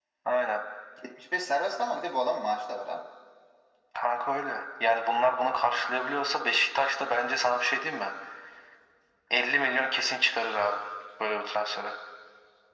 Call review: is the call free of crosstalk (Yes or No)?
Yes